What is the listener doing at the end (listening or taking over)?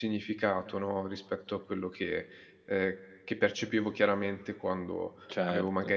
listening